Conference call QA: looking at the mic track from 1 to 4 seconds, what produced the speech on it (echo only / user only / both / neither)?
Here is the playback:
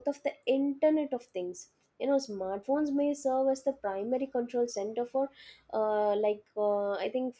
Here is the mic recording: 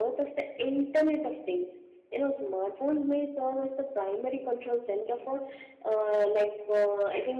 echo only